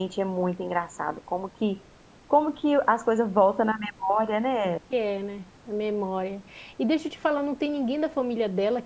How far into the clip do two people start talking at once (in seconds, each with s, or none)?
none